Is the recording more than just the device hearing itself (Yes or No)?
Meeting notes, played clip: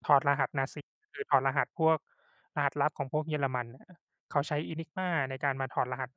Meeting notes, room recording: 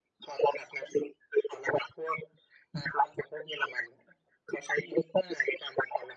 No